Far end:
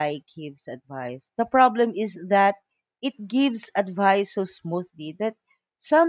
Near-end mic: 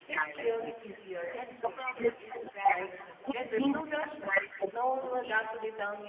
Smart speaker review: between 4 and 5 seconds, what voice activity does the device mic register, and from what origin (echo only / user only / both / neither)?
both